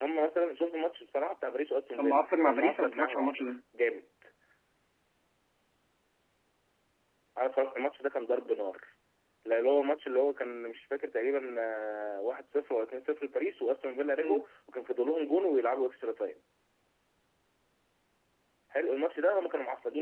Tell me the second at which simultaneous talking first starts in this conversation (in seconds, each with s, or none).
2.0 s